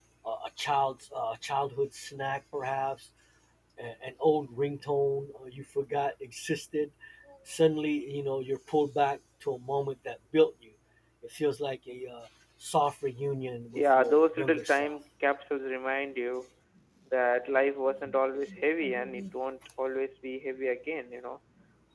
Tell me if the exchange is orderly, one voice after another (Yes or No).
No